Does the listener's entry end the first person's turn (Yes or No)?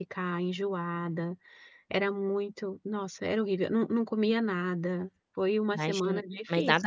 Yes